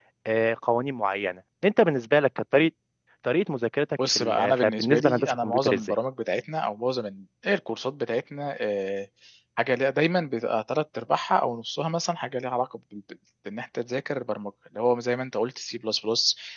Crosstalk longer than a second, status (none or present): present